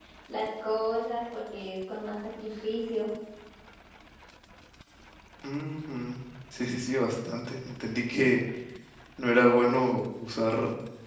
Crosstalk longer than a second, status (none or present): none